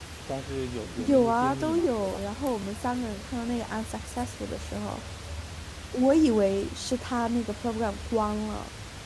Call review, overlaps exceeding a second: present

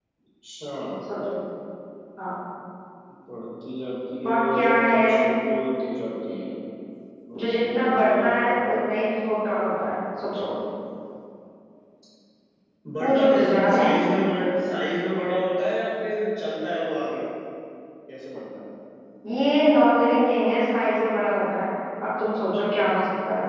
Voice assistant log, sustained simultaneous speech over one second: present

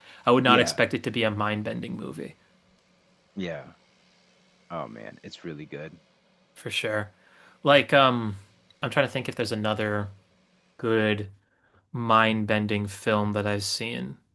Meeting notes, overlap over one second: none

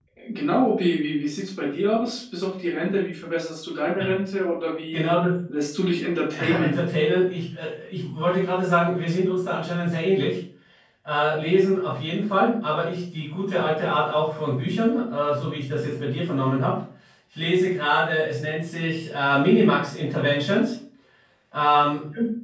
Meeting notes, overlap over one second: none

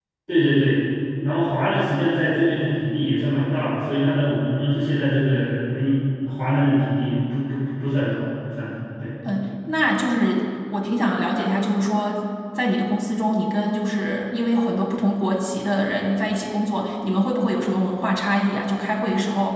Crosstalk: none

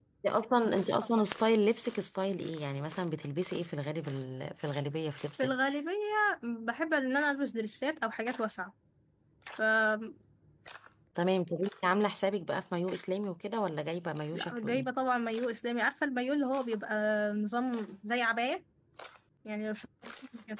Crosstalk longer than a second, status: none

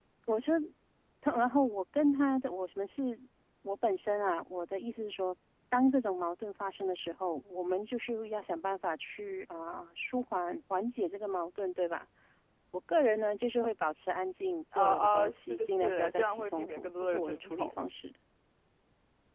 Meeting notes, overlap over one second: present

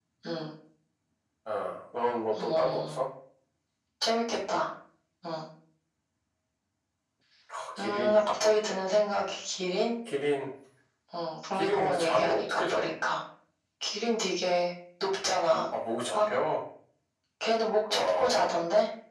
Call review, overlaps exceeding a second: present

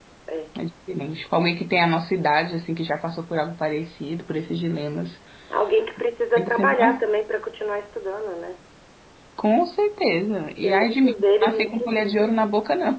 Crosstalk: present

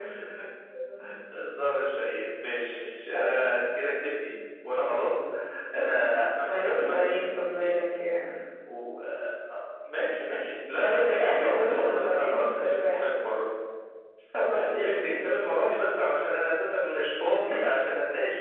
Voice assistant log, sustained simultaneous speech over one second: present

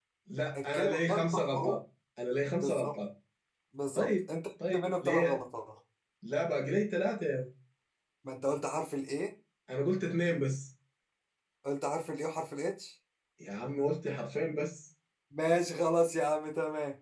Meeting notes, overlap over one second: present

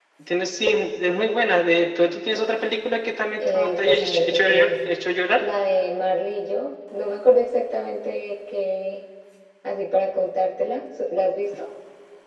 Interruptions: present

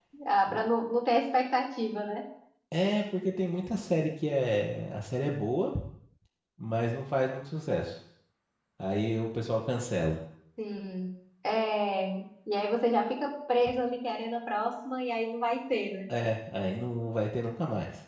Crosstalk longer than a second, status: none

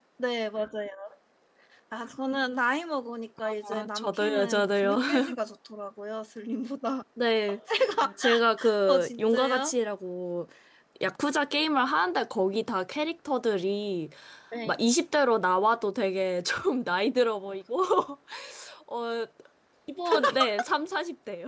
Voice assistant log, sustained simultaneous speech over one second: present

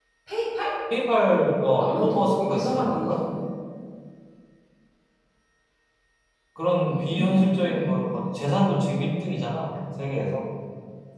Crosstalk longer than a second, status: present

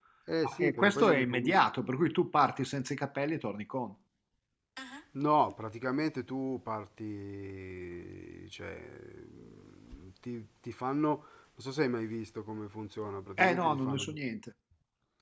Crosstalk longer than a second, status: present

